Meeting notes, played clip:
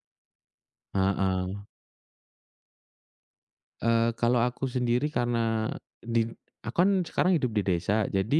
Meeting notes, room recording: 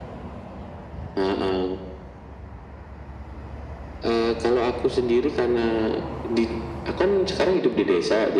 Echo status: present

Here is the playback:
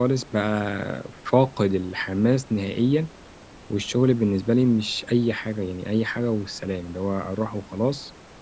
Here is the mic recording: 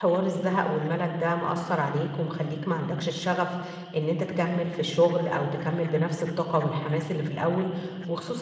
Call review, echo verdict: none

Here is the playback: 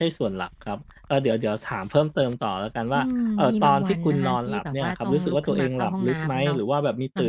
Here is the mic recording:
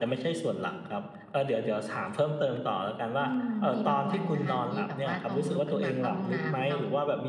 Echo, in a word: present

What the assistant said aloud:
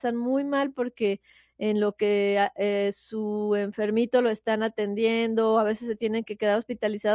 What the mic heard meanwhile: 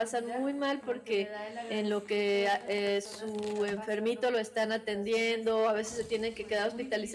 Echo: present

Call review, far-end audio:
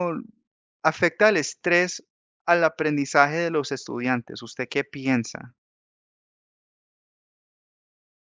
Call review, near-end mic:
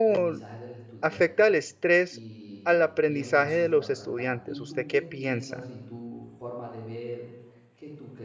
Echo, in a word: present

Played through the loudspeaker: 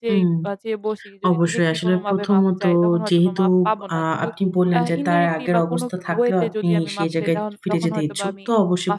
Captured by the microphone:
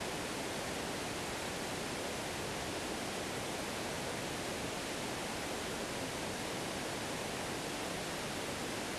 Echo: none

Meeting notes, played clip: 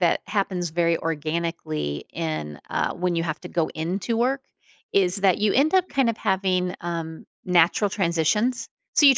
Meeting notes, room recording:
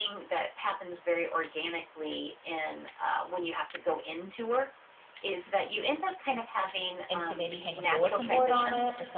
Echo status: present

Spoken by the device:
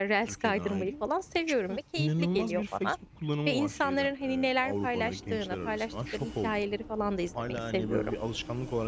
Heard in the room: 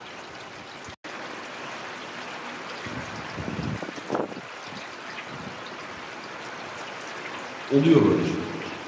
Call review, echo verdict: none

